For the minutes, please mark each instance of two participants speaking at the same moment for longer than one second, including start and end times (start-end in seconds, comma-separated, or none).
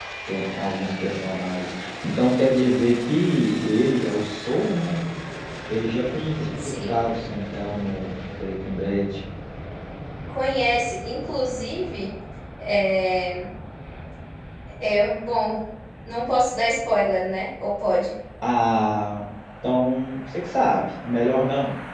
none